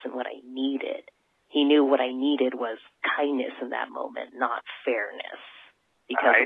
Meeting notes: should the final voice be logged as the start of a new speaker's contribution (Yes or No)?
Yes